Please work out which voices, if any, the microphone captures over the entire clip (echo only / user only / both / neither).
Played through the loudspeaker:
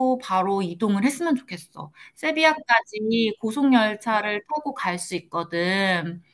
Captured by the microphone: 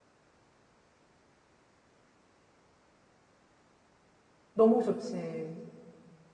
user only